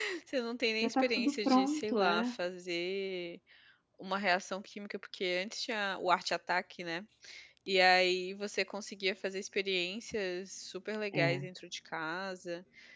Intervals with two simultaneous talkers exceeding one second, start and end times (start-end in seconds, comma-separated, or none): 0.8-2.4